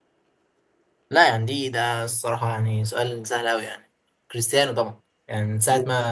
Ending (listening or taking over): listening